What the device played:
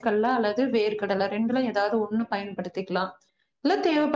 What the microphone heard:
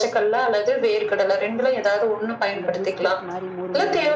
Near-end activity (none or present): present